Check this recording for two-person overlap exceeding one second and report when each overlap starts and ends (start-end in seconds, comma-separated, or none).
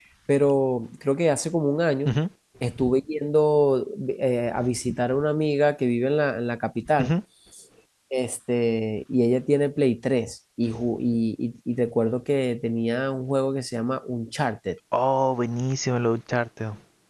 none